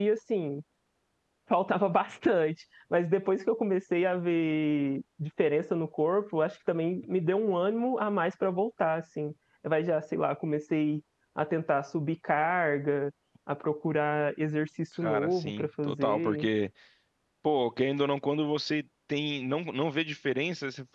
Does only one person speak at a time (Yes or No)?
No